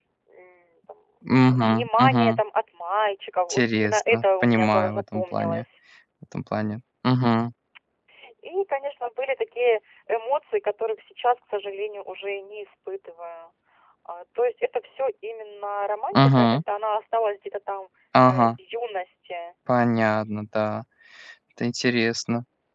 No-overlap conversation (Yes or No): No